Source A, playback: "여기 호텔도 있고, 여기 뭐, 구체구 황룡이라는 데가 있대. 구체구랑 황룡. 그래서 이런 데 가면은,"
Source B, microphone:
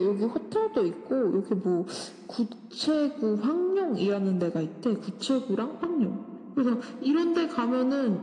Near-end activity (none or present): none